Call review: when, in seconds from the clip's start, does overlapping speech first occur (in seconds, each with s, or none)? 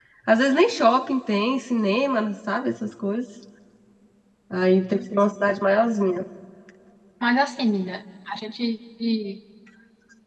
none